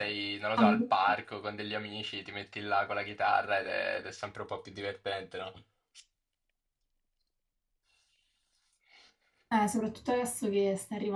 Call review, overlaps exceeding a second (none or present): none